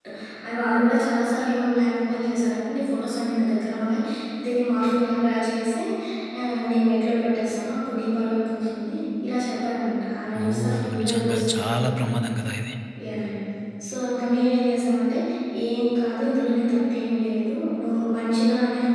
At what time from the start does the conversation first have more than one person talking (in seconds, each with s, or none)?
10.3 s